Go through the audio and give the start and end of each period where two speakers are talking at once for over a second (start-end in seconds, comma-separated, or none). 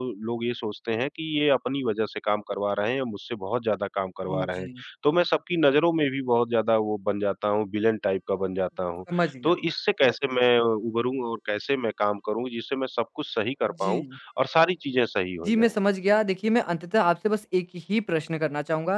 none